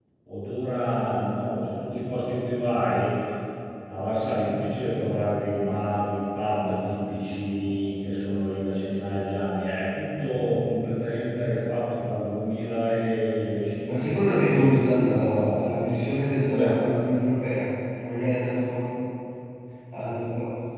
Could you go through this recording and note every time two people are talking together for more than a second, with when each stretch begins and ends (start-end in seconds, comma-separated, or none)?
13.9-17.0